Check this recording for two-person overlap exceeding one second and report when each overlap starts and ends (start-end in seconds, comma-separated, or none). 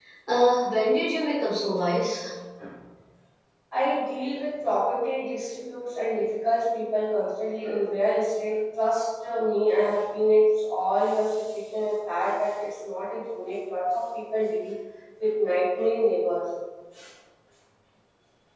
none